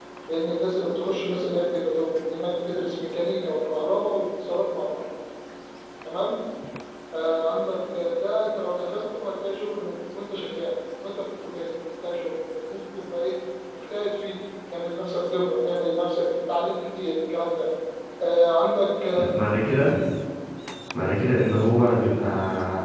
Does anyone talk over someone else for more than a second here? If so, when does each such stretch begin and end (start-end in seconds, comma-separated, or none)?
none